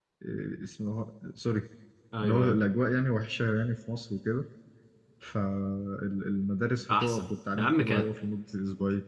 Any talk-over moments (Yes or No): Yes